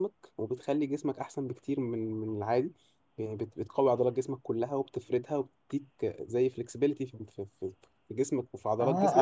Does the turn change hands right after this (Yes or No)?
Yes